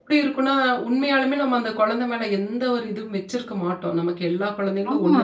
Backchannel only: Yes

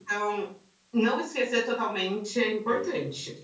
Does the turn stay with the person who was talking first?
No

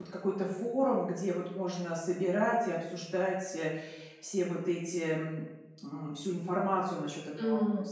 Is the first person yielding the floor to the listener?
Yes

